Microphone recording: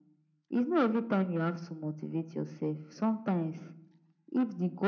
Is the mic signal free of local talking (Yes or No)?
Yes